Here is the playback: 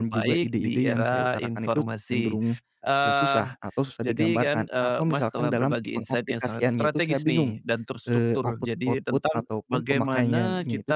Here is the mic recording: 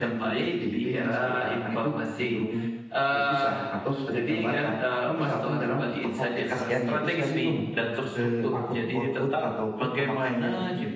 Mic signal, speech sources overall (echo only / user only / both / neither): echo only